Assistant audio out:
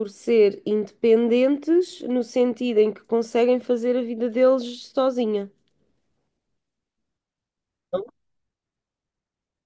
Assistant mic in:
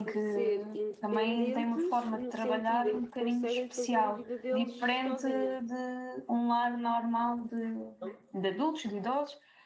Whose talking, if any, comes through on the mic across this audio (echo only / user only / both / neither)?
both